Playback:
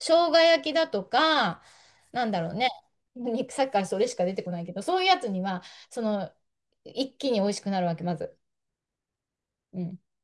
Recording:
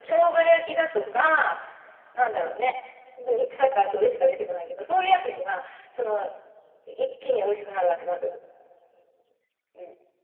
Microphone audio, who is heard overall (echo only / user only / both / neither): echo only